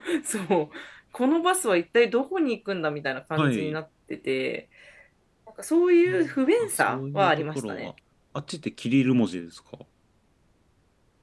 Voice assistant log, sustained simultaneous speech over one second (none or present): present